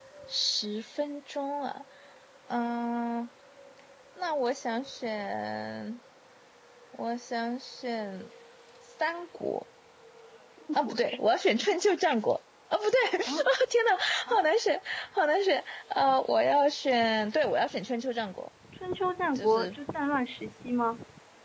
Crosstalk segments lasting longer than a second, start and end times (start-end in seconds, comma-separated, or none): none